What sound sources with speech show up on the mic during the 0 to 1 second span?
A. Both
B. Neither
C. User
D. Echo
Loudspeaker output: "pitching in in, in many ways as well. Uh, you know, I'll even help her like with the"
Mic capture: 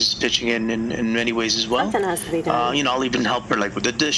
D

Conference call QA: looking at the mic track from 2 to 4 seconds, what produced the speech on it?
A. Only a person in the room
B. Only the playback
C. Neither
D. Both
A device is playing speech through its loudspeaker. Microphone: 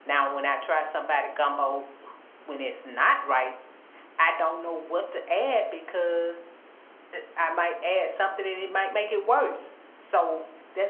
B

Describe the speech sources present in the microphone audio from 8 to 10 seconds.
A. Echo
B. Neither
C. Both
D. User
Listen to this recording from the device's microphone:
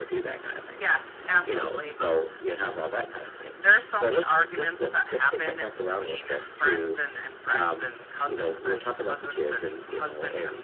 A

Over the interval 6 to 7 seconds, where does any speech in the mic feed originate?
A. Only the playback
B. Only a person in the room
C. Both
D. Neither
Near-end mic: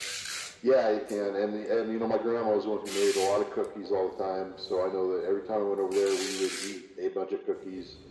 A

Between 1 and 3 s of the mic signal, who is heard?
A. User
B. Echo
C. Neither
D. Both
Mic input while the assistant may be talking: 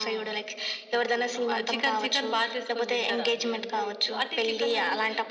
B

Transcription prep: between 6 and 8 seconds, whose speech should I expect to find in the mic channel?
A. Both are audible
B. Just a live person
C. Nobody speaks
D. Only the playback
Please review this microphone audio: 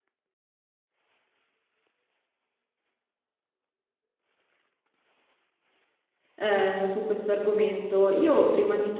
B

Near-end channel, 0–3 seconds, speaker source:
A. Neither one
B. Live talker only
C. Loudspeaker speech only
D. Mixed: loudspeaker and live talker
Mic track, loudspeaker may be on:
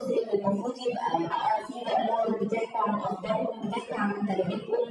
C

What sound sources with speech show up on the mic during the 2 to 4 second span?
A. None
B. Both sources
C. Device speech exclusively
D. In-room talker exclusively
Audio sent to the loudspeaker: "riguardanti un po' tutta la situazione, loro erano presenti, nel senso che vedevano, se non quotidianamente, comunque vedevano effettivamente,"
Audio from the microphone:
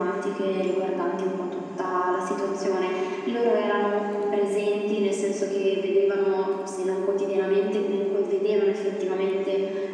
C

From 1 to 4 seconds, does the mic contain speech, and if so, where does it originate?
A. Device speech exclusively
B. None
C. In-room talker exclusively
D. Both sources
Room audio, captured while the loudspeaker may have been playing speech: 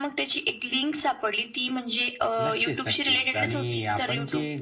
A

